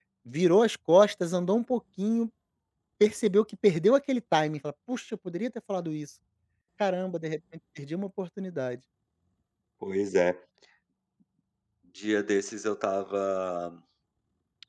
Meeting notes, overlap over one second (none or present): none